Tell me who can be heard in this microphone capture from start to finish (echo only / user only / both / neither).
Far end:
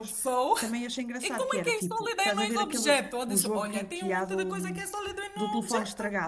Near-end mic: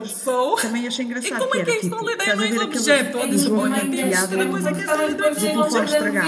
both